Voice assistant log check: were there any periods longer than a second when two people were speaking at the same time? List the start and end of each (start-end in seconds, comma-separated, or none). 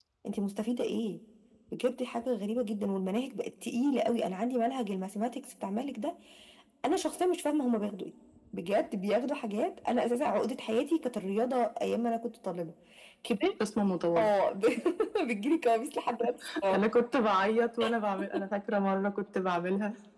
none